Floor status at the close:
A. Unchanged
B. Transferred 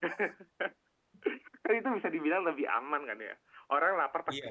A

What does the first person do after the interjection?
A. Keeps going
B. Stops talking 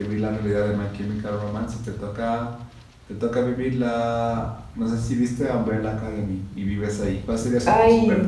B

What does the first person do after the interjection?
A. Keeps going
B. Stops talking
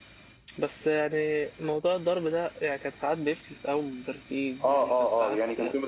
B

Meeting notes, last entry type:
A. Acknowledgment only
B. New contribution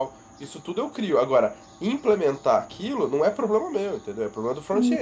B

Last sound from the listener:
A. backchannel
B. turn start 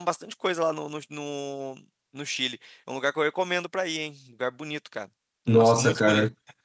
B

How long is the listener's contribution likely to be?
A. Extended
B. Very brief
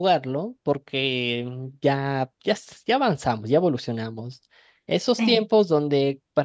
B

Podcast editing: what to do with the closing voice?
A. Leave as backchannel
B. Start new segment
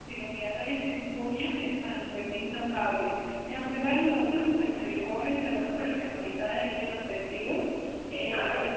A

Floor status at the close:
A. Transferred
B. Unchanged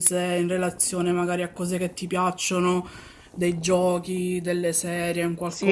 A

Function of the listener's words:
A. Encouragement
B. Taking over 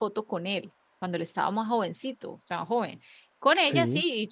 A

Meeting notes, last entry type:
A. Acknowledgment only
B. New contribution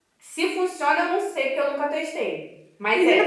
B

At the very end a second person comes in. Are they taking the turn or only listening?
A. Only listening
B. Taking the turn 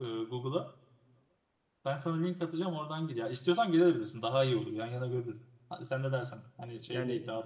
B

